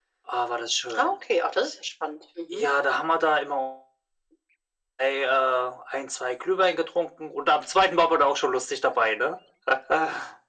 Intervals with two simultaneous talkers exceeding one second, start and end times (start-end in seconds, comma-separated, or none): none